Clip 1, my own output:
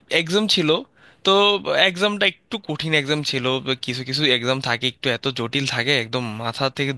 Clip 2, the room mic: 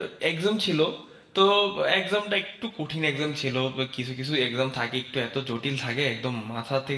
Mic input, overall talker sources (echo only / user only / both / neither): echo only